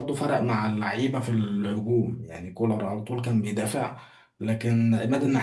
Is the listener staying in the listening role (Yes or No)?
Yes